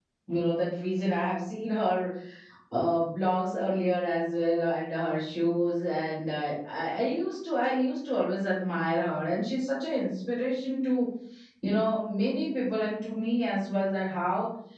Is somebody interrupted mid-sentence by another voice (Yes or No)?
No